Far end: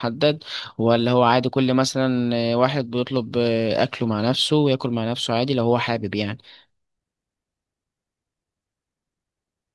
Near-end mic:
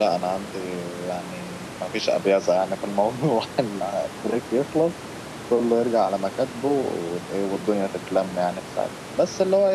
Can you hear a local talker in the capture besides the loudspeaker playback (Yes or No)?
Yes